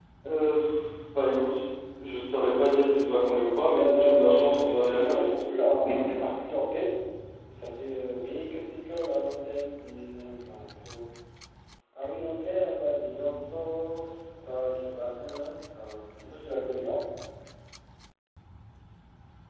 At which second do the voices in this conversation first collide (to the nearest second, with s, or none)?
4 s